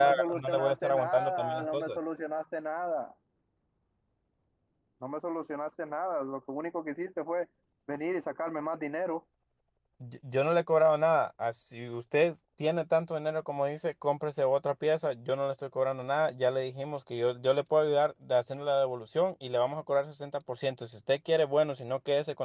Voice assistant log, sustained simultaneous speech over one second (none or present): present